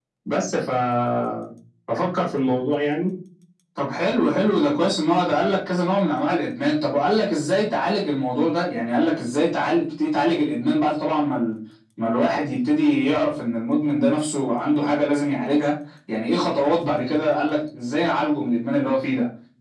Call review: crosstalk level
none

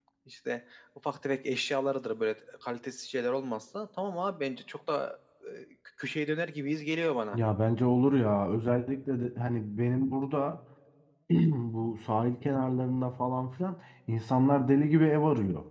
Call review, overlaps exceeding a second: none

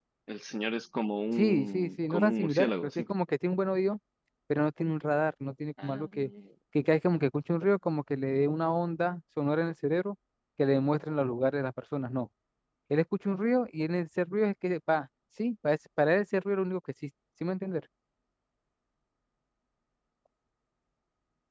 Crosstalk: present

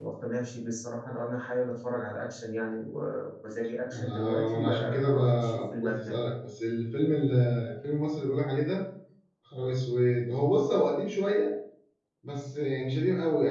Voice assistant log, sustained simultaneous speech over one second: present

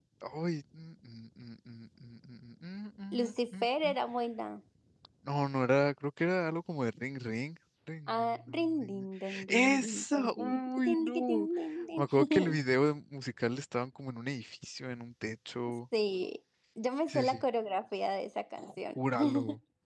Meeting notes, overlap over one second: present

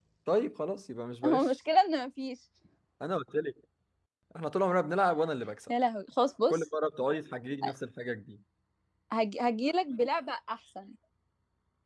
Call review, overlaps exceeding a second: none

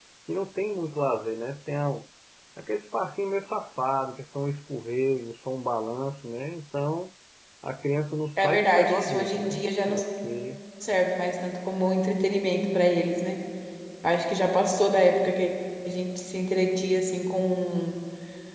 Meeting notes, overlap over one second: present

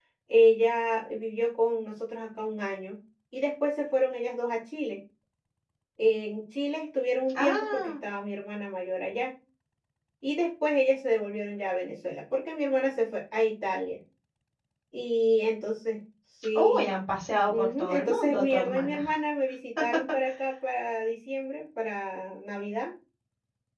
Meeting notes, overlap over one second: present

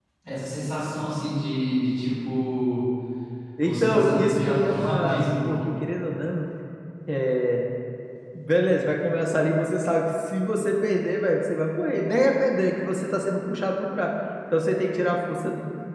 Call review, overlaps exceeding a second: present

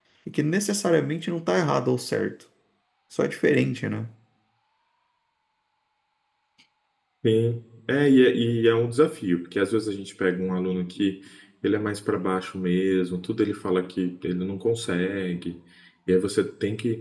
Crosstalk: none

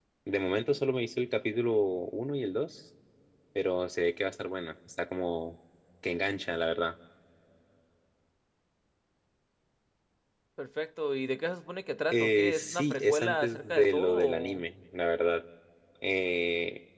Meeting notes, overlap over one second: present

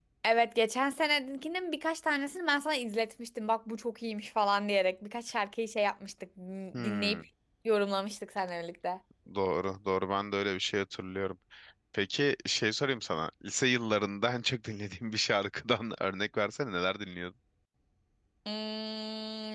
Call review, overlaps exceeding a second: none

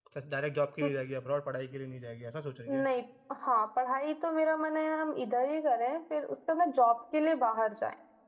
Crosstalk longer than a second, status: none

